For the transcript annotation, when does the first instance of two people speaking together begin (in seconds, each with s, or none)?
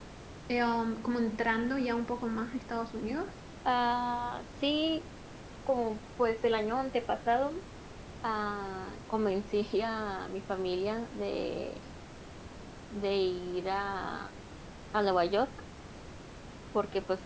none